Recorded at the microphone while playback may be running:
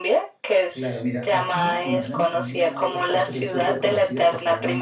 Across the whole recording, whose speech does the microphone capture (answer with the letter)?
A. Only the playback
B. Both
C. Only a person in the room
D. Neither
B